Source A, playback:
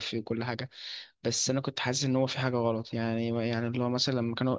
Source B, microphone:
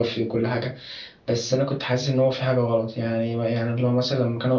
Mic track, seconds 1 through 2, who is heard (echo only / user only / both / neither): echo only